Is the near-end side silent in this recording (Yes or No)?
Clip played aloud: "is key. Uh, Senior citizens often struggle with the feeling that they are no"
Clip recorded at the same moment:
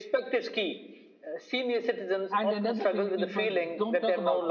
No